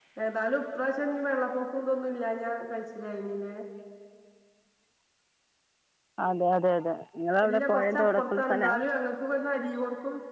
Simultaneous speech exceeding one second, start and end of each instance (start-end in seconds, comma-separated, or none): 7.4-8.7